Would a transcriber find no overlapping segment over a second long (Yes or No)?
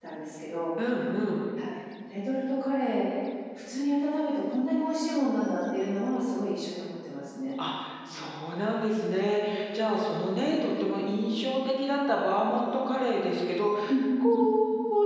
Yes